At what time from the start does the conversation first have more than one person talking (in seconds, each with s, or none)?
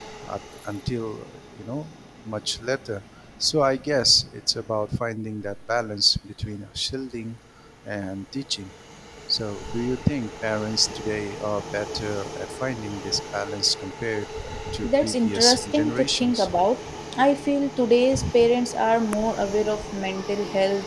14.8 s